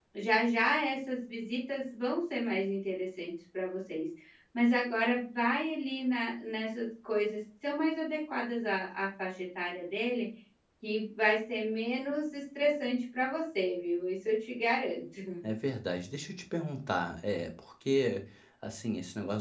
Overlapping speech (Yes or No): No